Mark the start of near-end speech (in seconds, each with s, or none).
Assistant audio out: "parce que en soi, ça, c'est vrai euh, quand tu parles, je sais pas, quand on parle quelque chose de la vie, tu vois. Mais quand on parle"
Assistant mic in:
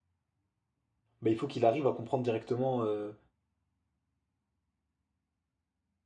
1.2 s